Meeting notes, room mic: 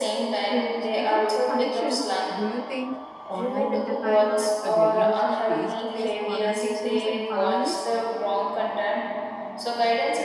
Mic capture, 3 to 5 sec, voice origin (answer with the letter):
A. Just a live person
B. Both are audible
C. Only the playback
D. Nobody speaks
B